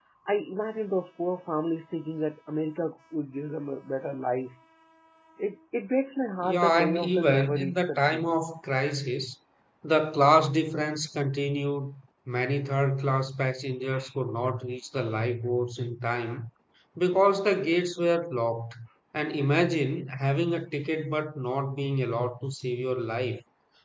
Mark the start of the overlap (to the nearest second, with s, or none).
6 s